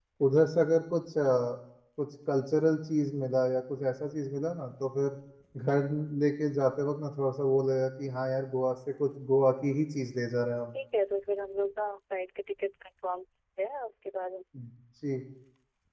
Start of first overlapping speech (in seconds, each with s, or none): none